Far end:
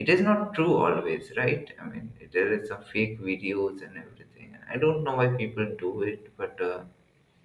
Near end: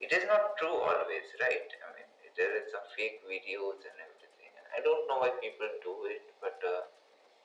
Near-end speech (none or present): none